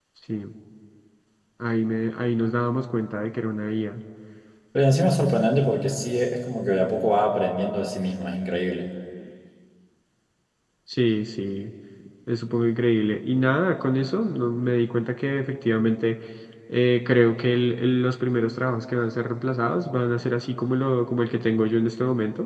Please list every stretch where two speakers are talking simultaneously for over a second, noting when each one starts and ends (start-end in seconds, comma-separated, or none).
none